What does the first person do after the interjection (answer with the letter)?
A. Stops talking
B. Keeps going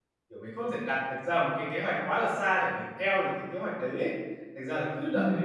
B